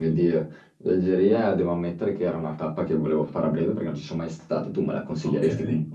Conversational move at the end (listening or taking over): taking over